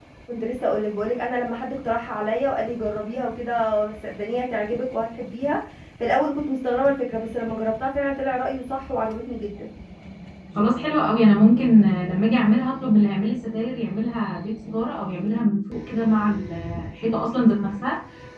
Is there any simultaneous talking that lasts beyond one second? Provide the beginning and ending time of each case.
none

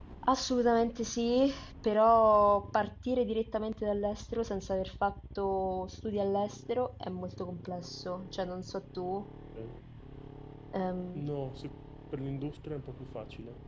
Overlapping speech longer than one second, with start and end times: none

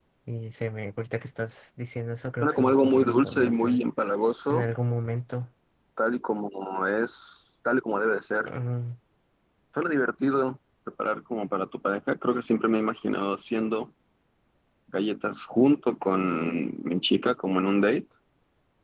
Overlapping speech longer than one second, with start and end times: 2.4-3.8

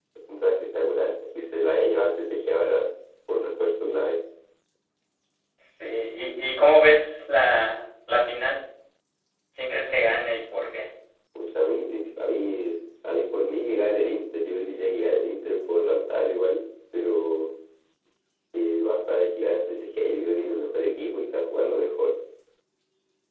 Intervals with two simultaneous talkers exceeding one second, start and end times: none

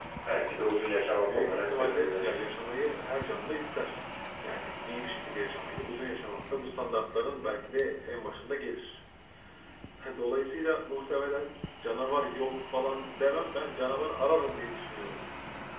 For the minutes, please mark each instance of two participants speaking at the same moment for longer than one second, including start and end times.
1.1-2.4

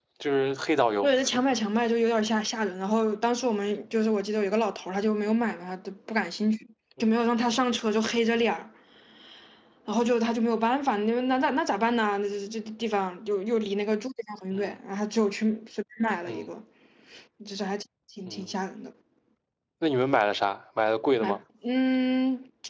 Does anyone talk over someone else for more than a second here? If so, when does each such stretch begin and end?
none

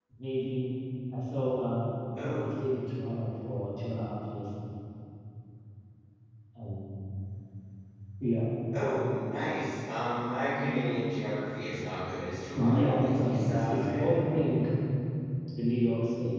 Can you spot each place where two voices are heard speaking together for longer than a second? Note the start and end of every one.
12.5-14.1

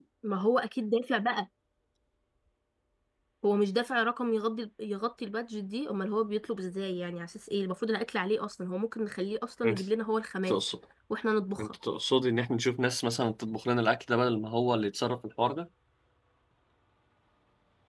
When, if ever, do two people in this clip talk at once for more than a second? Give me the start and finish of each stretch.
none

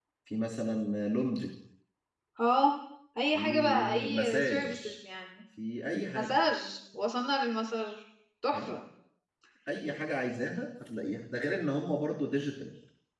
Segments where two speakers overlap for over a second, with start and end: 3.3-4.8

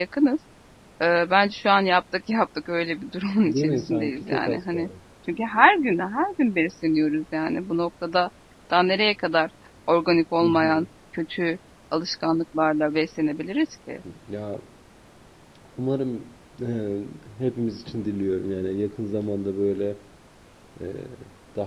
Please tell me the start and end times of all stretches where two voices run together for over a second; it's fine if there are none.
3.4-4.9

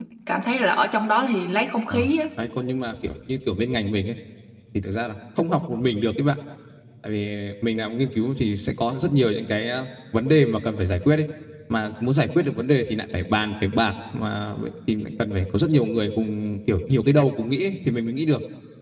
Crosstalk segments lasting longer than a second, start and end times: none

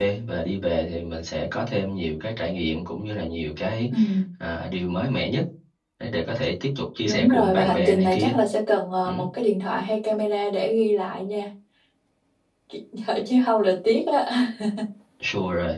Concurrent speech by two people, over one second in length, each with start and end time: 7.0-8.3

